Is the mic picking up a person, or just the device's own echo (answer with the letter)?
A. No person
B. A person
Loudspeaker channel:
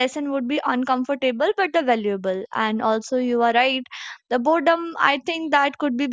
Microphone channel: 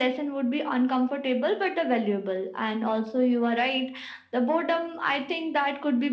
A